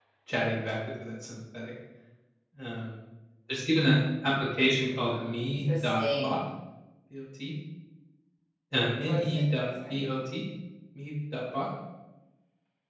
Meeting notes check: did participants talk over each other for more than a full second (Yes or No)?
Yes